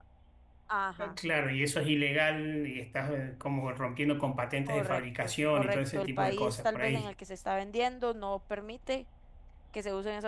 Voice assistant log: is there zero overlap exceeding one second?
No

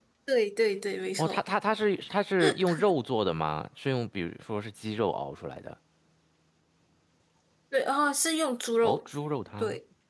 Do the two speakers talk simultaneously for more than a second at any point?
No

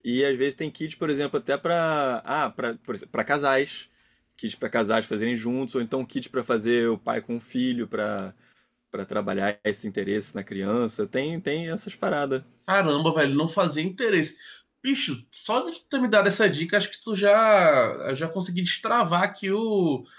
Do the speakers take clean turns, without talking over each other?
Yes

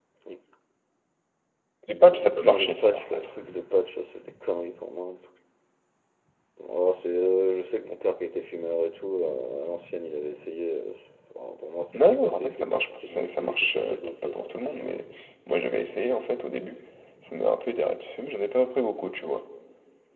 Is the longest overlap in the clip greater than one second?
Yes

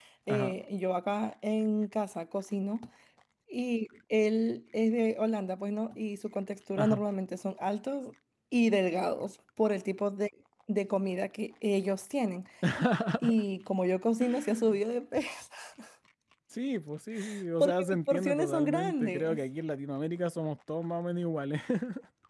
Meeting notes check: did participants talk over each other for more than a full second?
Yes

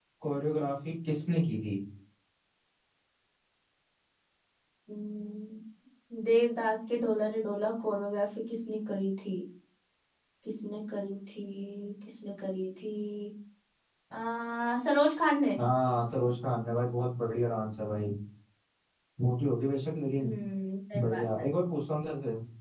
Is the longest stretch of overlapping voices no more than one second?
Yes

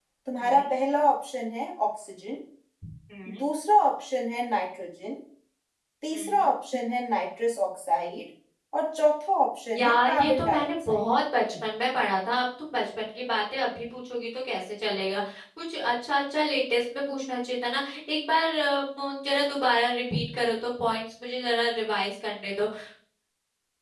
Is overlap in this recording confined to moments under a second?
No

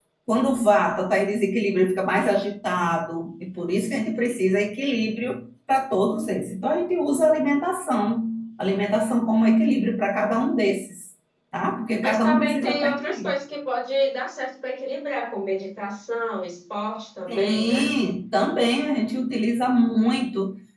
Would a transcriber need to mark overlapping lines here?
Yes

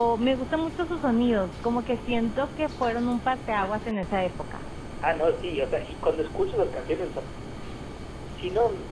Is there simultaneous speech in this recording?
No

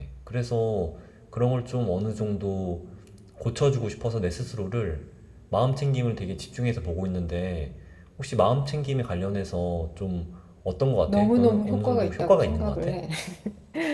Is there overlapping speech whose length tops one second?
Yes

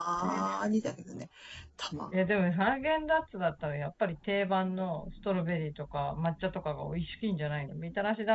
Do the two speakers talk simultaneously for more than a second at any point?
No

